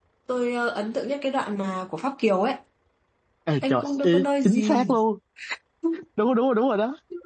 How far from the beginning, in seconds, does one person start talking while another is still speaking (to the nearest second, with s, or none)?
4 s